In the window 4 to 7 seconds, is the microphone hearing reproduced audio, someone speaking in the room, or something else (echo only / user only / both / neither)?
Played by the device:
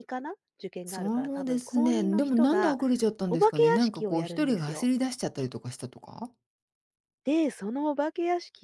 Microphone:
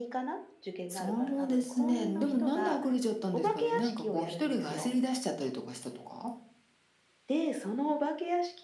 echo only